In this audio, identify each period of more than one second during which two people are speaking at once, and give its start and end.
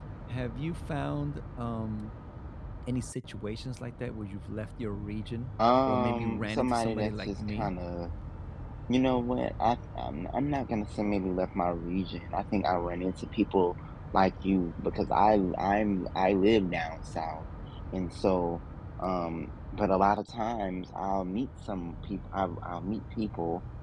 5.9-7.7

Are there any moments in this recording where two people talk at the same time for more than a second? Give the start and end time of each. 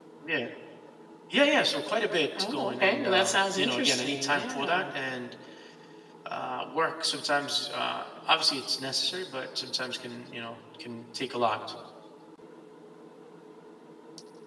2.4-4.8

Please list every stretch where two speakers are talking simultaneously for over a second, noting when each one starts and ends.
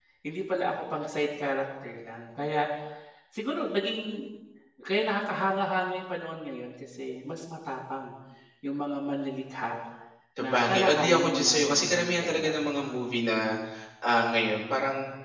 10.4-12.5

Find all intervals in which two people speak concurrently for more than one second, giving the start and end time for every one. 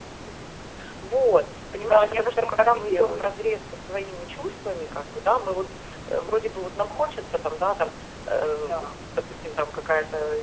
1.8-3.2

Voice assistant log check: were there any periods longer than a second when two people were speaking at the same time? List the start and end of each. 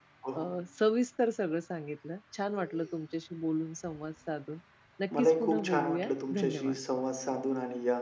5.2-6.8

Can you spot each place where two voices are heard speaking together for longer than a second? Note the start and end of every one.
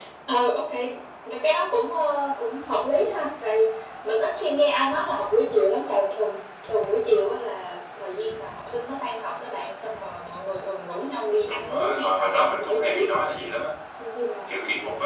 11.5-13.0

